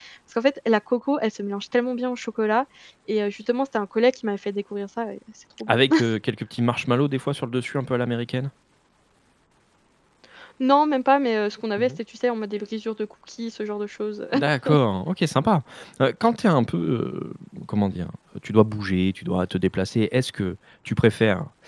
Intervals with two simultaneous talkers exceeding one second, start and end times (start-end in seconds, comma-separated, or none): none